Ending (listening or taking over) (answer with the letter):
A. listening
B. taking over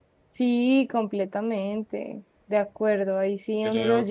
A